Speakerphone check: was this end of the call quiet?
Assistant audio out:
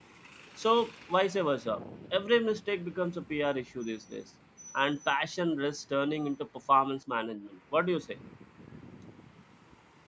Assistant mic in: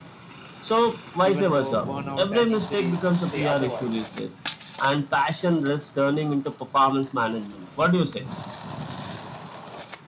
No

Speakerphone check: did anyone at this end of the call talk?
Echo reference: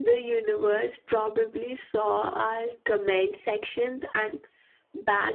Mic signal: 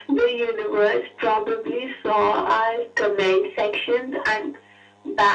No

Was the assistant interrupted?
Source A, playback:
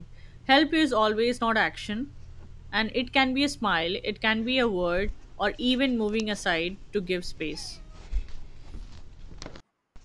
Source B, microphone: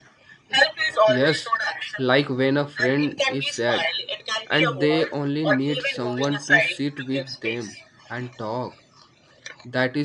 Yes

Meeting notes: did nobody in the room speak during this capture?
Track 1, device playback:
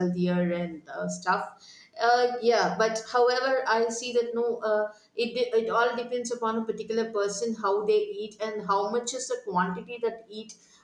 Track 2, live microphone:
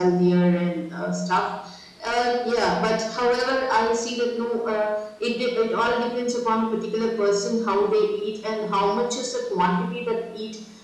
Yes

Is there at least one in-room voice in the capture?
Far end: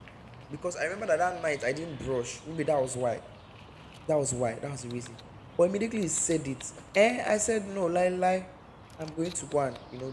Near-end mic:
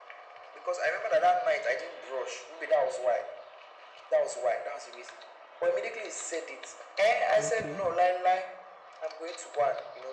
Yes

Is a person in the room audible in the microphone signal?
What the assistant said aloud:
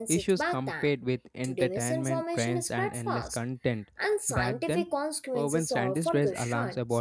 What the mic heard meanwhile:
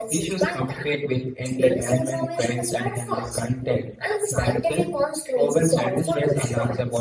No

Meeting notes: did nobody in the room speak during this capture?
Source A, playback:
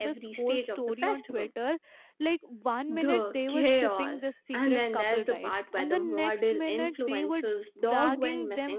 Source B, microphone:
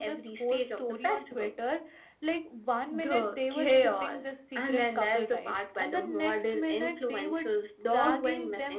Yes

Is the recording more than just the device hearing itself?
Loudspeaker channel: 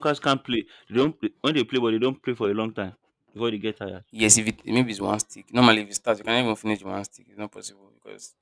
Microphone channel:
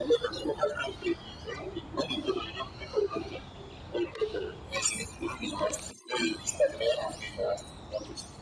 No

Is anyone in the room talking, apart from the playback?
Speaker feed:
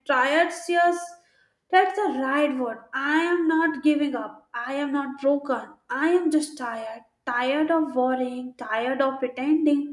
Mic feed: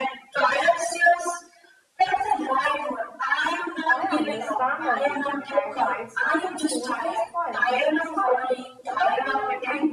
Yes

